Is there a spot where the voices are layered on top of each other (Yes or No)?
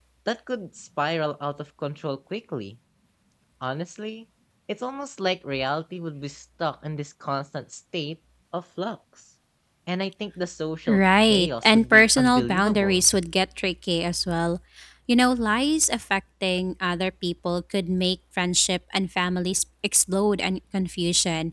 Yes